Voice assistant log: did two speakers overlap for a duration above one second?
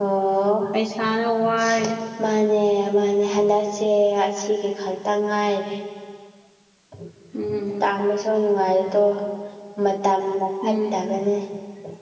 No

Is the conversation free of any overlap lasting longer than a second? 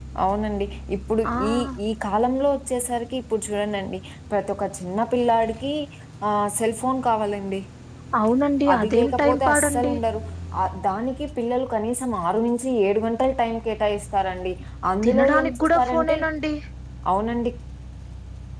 No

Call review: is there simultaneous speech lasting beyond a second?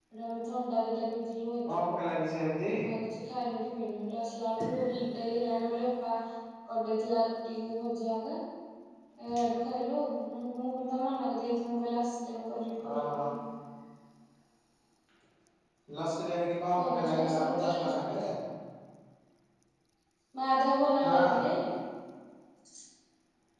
Yes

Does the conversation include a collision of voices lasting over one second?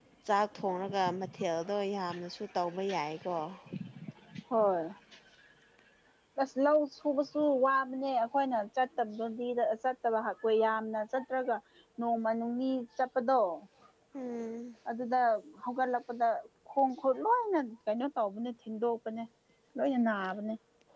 No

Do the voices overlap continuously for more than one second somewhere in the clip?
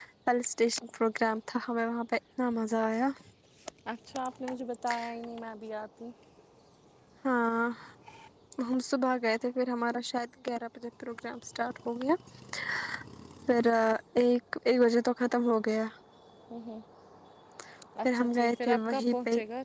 Yes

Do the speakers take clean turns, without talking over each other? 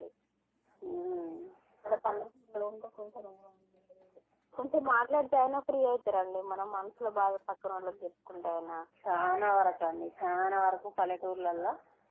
Yes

